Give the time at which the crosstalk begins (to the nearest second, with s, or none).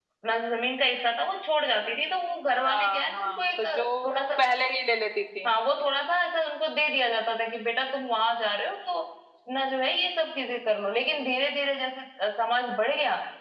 3 s